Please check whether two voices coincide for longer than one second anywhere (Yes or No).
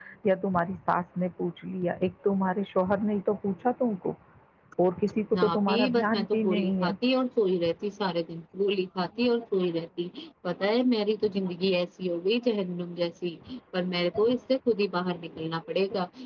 Yes